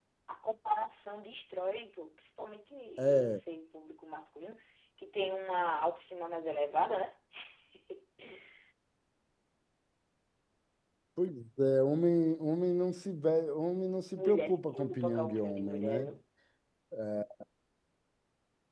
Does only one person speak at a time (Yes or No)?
No